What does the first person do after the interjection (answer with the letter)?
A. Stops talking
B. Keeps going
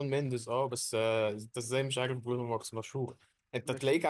B